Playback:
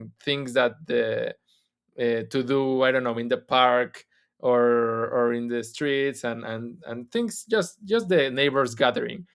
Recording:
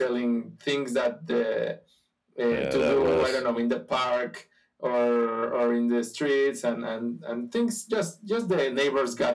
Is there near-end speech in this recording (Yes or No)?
Yes